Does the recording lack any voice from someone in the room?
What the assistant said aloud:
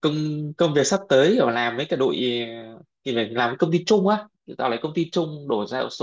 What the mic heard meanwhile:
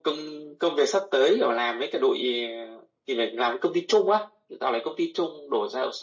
Yes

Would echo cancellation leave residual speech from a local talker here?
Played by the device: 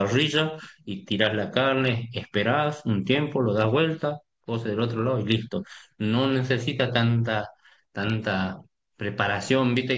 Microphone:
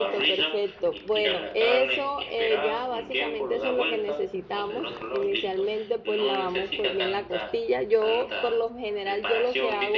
Yes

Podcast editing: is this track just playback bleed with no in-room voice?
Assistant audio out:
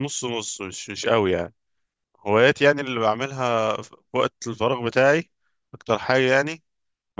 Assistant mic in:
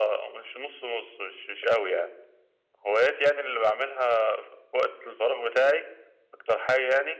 Yes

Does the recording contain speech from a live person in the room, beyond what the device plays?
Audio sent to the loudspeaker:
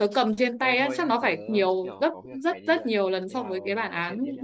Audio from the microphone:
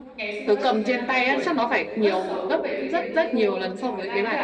Yes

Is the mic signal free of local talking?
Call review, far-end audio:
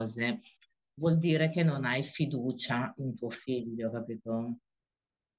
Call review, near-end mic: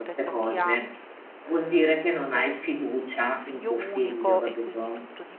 No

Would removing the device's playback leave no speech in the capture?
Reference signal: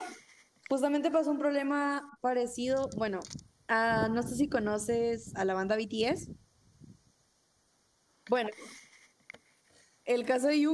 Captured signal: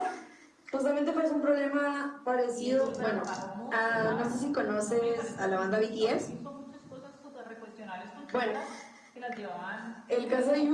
No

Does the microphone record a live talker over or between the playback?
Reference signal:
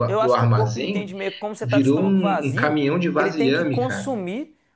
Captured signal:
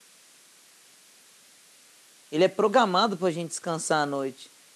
Yes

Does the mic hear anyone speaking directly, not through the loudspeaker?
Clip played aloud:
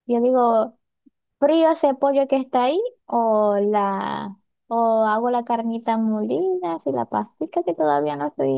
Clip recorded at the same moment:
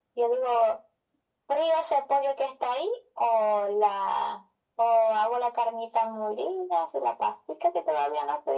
No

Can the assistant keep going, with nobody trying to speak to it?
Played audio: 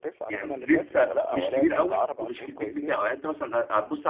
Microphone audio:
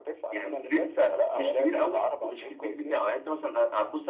Yes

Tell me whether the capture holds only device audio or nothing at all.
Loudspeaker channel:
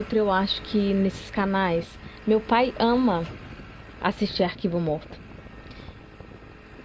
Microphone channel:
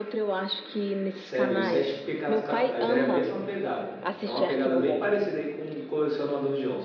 No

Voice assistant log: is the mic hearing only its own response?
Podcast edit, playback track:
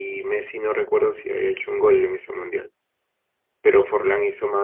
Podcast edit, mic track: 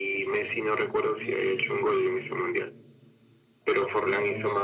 No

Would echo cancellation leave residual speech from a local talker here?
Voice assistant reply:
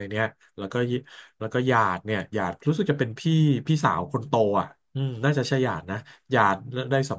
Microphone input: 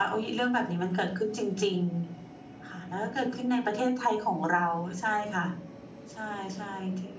Yes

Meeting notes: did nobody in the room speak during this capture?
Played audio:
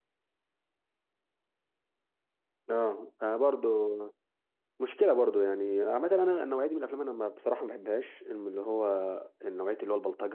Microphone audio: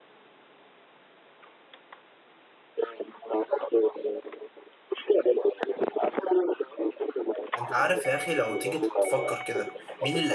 No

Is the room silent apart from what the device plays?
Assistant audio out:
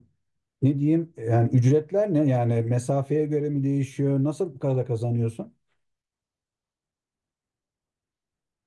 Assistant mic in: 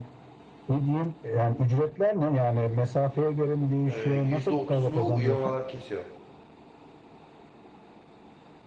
No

